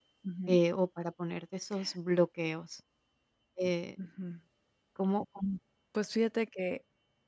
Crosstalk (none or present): none